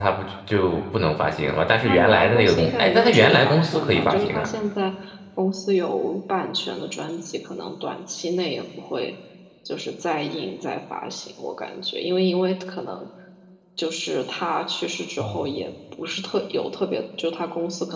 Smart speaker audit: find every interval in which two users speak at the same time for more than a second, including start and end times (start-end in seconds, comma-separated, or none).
1.9-4.5